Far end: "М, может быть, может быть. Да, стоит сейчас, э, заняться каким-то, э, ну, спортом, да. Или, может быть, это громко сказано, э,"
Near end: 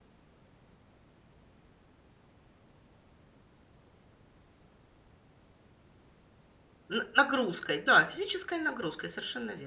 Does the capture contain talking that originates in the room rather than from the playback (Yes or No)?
Yes